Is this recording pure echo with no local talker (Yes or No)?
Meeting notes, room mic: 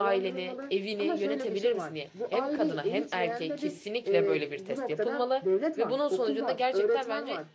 No